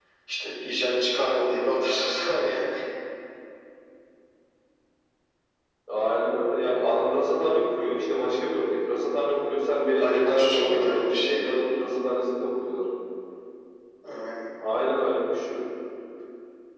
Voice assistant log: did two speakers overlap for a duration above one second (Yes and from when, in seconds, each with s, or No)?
Yes, from 10.0 s